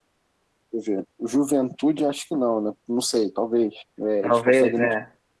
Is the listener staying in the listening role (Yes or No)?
Yes